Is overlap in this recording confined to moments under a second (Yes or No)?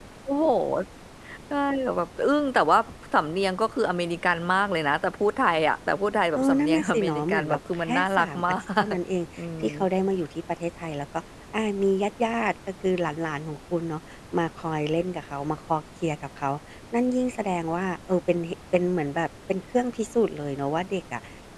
No